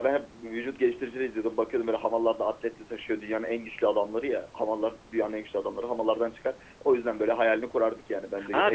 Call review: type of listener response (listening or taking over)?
taking over